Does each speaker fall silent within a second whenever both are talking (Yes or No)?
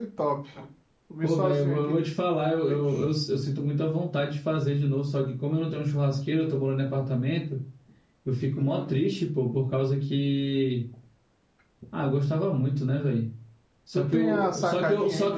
No